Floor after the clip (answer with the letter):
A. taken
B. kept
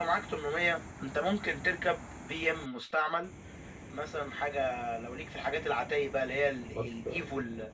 B